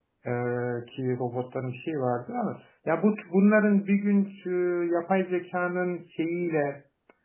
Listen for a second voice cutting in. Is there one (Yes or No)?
No